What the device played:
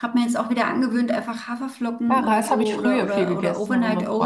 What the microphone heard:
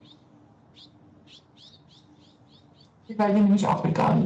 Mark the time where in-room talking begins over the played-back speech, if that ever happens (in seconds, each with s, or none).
3.2 s